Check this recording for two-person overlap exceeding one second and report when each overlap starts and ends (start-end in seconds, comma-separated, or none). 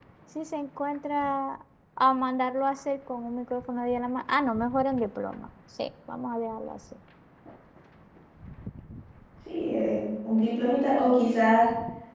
none